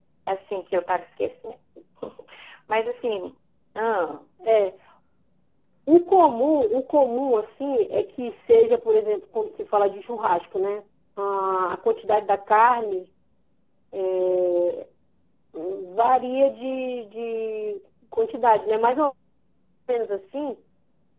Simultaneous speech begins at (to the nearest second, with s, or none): none